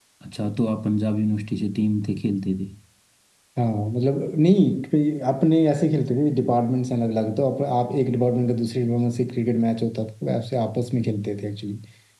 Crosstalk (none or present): none